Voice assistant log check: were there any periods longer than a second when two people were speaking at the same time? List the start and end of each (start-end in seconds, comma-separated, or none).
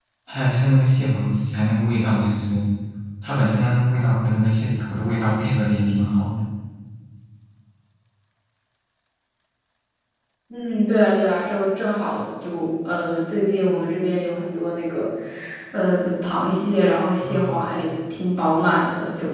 none